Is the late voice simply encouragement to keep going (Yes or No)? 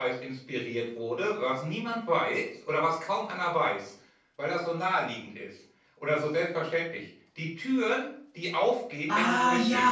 No